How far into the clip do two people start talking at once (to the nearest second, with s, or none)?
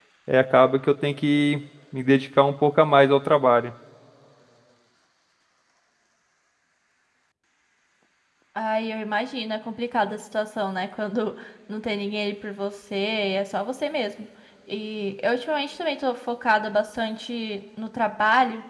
none